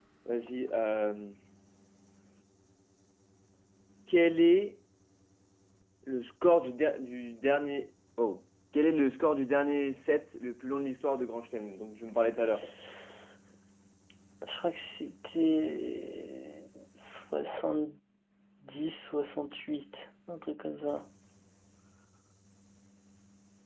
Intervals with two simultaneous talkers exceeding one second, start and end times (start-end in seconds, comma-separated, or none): none